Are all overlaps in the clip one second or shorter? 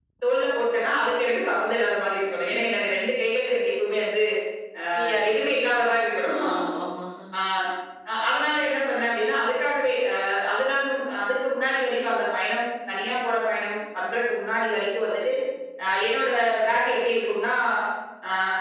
Yes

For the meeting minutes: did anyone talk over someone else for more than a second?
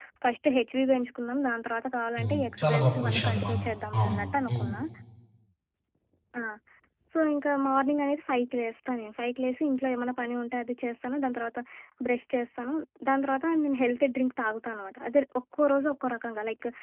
Yes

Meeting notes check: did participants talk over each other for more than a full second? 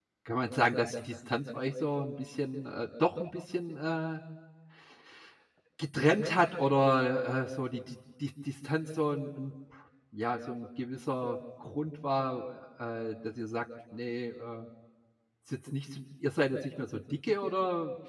No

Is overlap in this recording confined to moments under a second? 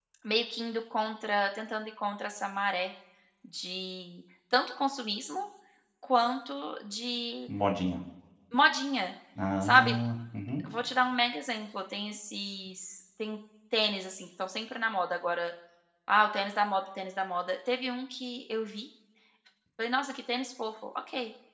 Yes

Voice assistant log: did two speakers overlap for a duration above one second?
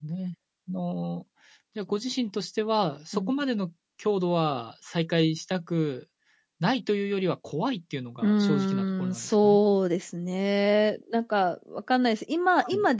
Yes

